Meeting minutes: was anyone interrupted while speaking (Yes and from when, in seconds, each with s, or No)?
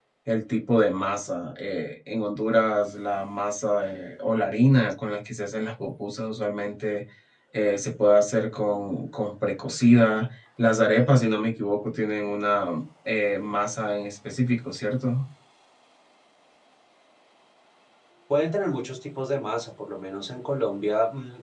No